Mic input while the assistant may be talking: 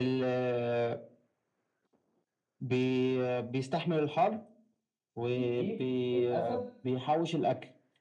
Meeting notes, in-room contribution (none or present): present